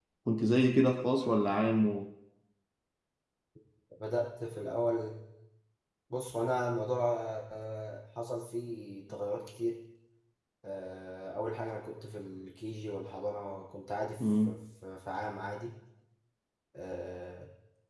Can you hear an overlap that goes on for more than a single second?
No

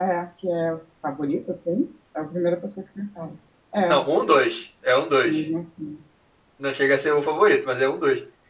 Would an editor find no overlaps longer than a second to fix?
Yes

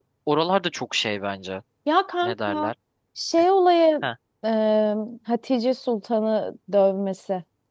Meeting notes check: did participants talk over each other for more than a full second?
No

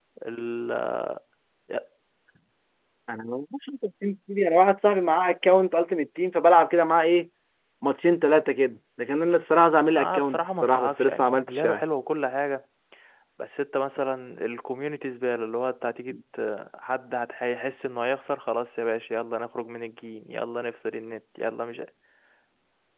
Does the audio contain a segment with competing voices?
Yes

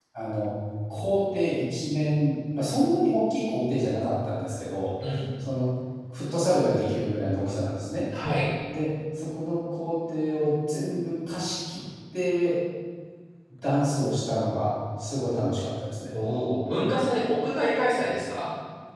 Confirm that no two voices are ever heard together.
Yes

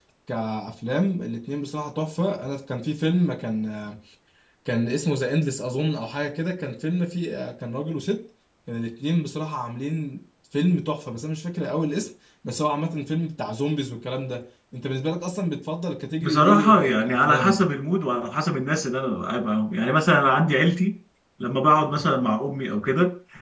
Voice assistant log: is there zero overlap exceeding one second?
No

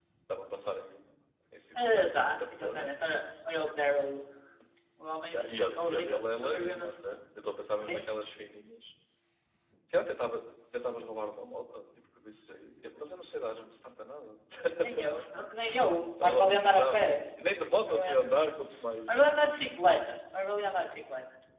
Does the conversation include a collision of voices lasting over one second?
Yes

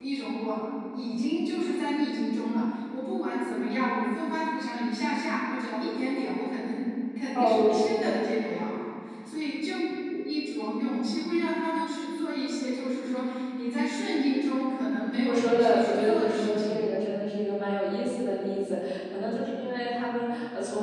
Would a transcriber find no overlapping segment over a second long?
No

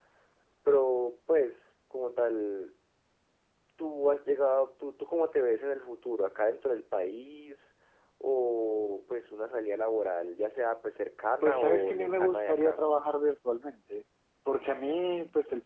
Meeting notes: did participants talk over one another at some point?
Yes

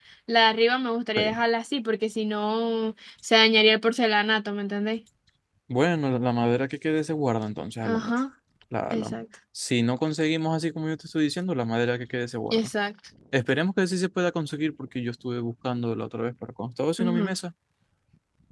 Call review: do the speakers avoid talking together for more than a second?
Yes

